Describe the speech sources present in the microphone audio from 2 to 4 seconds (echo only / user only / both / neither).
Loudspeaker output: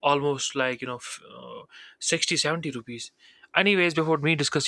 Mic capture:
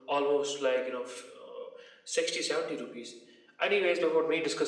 echo only